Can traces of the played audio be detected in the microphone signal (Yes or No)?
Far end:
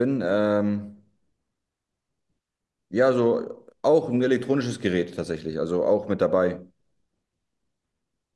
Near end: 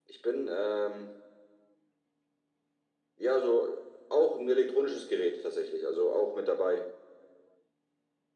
Yes